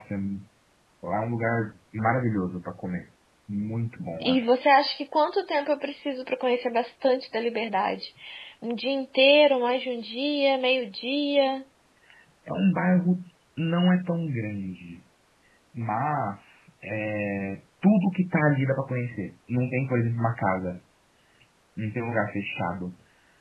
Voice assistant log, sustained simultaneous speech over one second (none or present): none